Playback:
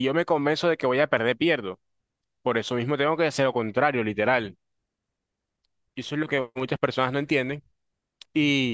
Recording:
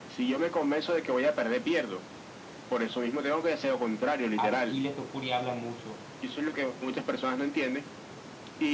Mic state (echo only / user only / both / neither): both